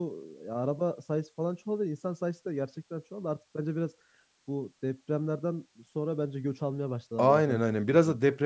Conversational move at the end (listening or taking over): taking over